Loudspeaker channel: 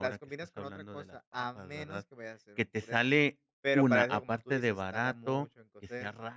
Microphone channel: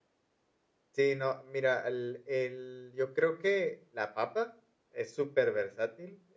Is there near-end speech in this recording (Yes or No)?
Yes